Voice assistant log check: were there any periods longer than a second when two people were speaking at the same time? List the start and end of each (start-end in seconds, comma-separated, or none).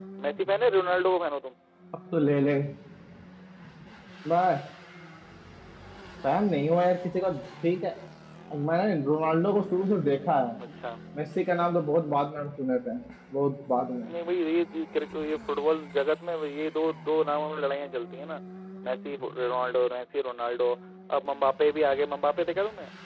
none